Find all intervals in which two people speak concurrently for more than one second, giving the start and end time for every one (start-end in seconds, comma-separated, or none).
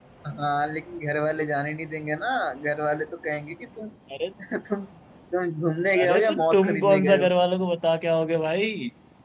6.0-7.3